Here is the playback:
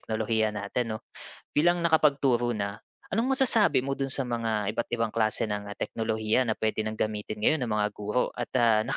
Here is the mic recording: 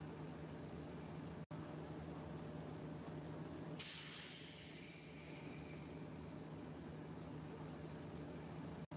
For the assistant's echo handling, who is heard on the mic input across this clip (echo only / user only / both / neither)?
neither